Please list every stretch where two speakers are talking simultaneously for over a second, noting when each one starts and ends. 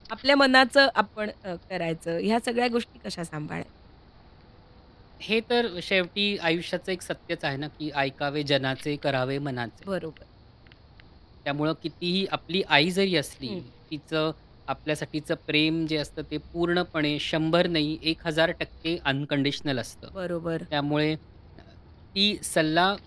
none

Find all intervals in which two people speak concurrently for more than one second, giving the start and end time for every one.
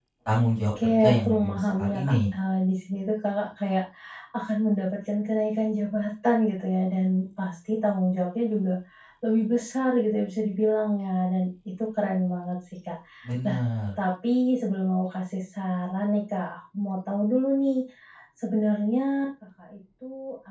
0.6-2.1

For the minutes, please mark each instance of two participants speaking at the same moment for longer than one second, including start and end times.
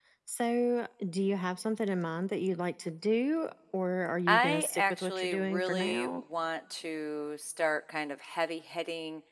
4.3-6.2

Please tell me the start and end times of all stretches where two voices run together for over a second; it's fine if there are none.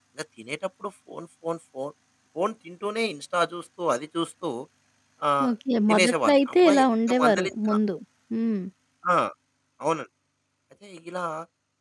5.9-7.8

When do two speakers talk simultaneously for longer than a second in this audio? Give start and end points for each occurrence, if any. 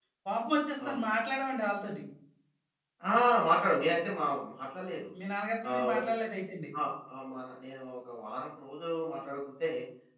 none

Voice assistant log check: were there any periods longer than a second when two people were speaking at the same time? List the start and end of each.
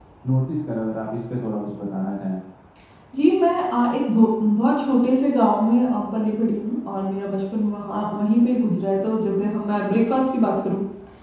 none

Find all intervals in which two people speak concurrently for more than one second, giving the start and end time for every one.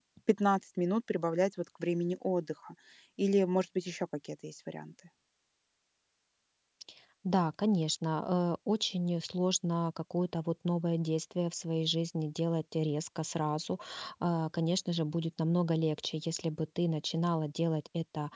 none

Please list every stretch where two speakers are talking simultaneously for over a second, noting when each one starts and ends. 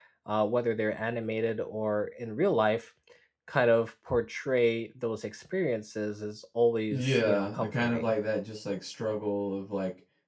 6.9-8.1

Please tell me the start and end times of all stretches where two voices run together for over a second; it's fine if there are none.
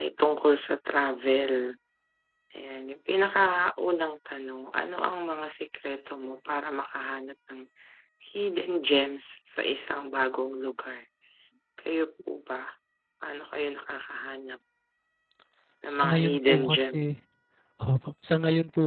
15.9-17.1

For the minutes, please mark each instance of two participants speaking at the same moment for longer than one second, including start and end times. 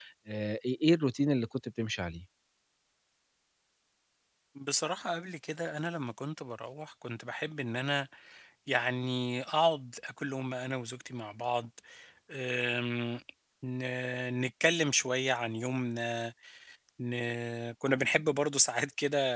none

